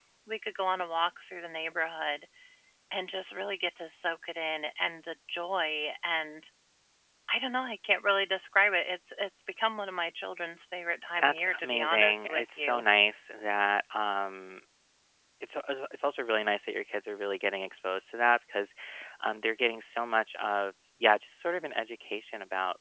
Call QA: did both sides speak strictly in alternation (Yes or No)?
No